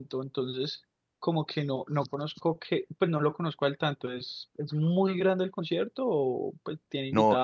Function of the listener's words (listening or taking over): taking over